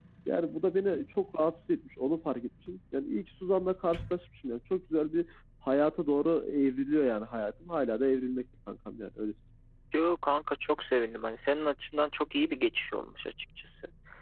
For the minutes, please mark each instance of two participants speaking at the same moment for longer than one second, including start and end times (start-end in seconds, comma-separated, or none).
none